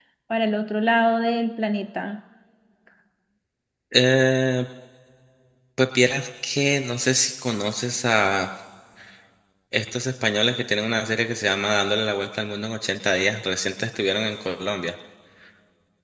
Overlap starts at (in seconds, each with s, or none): none